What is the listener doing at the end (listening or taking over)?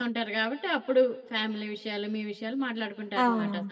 taking over